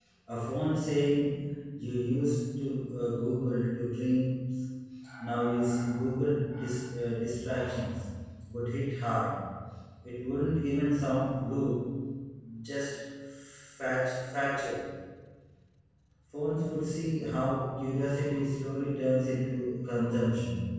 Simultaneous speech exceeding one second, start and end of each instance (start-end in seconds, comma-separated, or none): none